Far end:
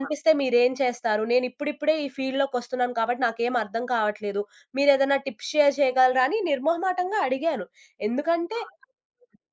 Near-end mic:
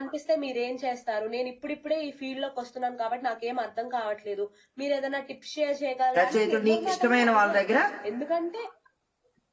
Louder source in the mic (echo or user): user